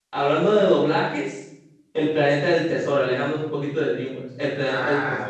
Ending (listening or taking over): taking over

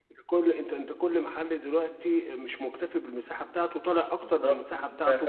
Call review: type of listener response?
taking over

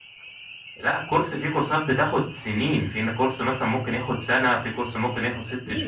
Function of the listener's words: taking over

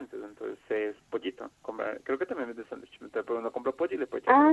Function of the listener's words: taking over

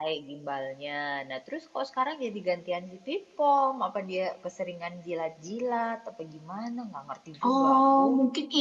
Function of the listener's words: taking over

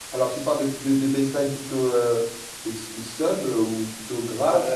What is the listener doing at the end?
taking over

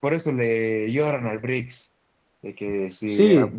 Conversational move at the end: listening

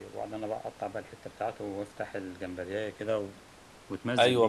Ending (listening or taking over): taking over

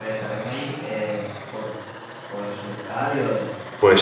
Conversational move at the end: taking over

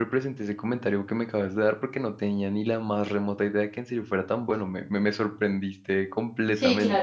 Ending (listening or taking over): taking over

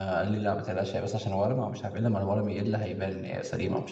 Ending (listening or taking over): taking over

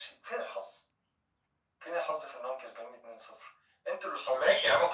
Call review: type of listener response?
taking over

